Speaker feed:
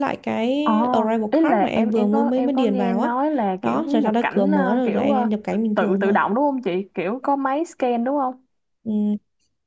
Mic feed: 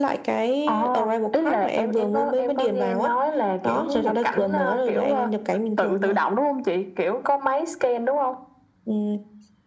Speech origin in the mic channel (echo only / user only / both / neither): echo only